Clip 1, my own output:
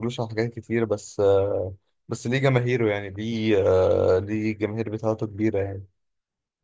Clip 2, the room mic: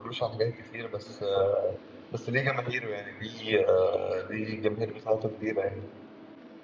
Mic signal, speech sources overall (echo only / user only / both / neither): echo only